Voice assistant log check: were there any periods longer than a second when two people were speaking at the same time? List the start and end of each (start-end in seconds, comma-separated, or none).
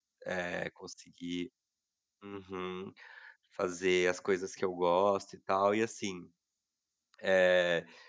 none